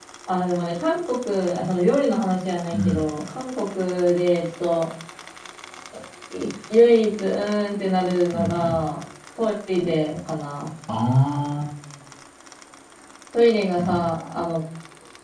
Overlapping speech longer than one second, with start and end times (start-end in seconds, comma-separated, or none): none